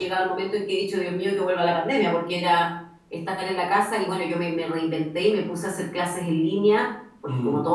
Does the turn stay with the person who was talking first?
Yes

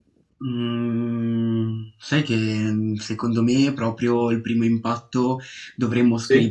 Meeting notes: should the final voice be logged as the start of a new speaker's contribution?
No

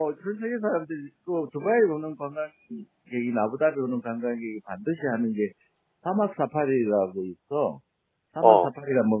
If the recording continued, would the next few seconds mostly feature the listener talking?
No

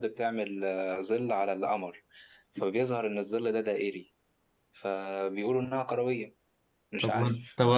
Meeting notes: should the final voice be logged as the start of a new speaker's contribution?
Yes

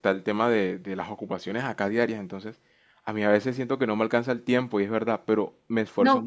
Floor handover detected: Yes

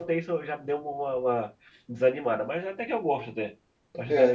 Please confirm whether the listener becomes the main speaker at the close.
Yes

